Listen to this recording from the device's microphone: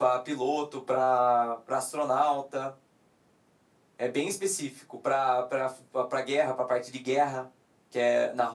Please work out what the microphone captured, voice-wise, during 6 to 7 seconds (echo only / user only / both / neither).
echo only